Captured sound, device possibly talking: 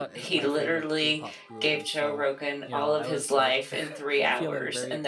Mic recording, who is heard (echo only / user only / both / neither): both